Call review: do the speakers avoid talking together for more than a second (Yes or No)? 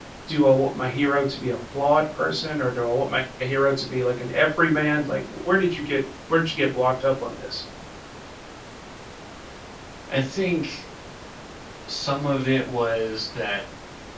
Yes